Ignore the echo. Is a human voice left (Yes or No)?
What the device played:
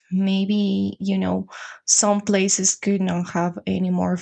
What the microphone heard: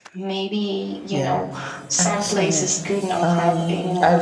Yes